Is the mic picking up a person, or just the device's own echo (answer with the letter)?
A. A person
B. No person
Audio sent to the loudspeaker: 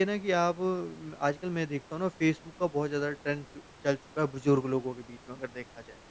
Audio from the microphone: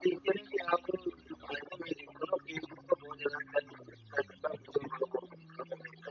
B